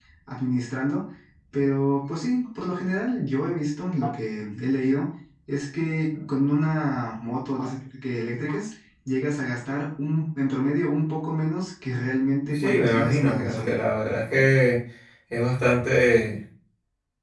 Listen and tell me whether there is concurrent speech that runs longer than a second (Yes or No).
Yes